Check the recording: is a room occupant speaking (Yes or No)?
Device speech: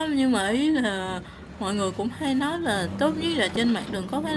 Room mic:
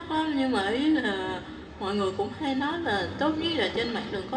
No